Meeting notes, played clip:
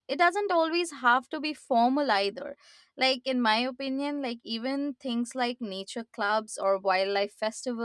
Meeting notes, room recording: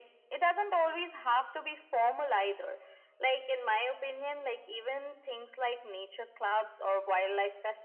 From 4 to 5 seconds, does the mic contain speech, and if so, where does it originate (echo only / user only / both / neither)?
echo only